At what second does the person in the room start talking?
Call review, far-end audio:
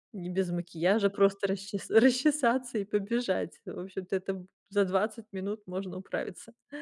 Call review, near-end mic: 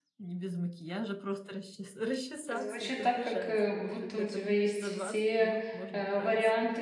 2.5 s

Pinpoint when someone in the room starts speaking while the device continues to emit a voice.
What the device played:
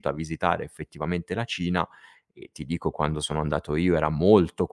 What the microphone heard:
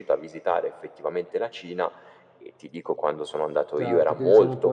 3.7 s

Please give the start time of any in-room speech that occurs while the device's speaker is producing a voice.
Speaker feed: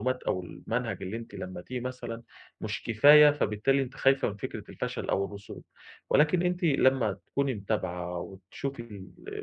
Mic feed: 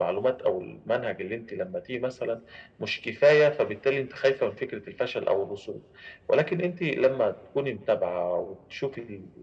none

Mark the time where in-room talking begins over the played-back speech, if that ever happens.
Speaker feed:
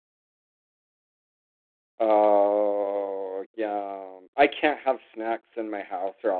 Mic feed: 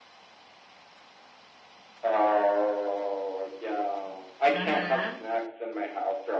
4.5 s

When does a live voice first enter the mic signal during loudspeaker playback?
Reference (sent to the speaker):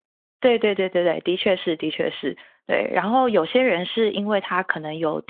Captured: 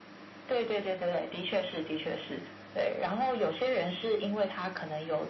none

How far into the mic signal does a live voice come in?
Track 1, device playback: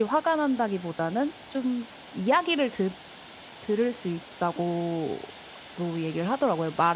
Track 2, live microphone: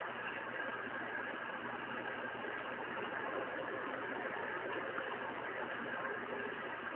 none

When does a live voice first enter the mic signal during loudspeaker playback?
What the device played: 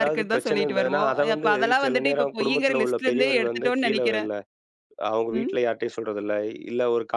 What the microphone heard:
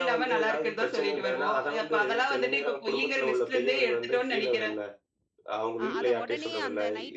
5.8 s

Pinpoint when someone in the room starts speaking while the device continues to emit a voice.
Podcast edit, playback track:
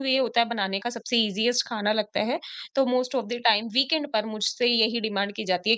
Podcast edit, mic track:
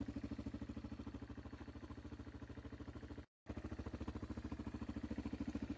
none

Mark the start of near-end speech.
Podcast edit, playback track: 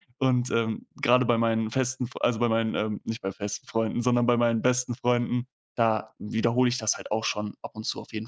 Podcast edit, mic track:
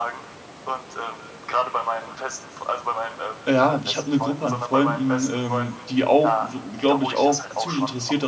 3.5 s

